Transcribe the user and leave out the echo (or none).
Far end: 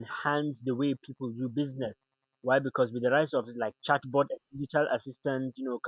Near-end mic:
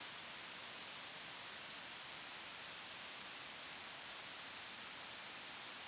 none